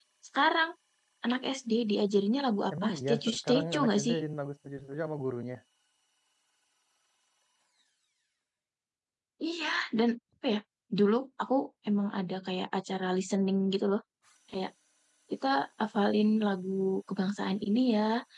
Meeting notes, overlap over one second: present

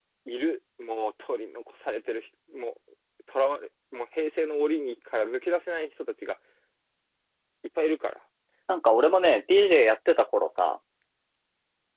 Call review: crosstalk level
none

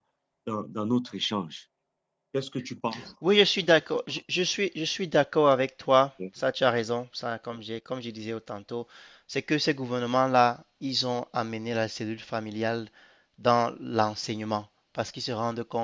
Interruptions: none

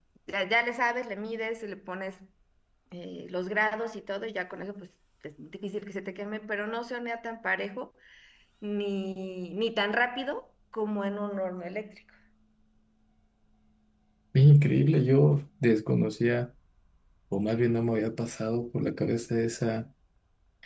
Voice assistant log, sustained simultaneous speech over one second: none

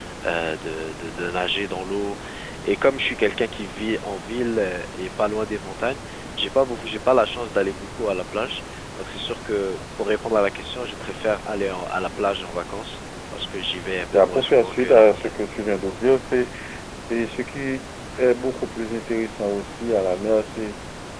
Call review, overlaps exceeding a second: present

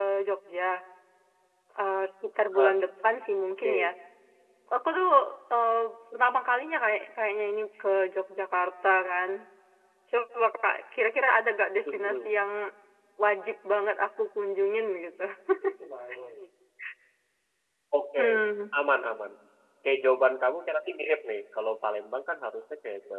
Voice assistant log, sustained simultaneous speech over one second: none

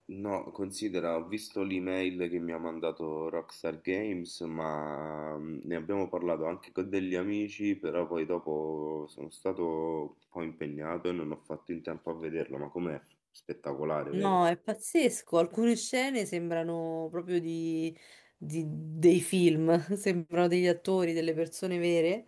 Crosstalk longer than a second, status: none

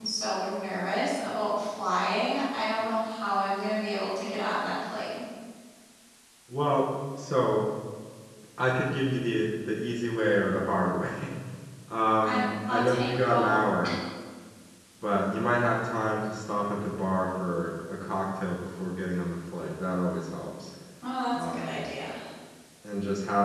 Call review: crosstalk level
present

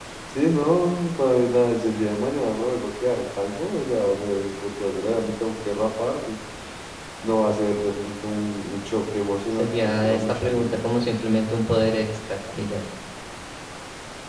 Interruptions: present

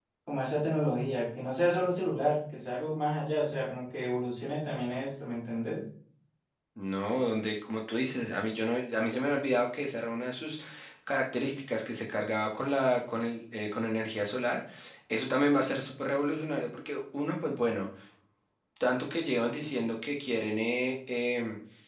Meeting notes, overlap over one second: none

